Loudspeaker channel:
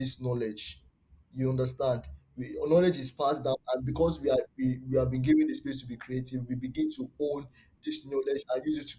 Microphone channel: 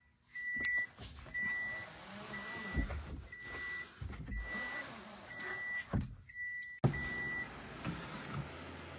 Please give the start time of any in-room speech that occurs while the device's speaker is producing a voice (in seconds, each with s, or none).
none